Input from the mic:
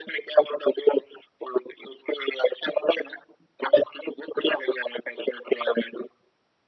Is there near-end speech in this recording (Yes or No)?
No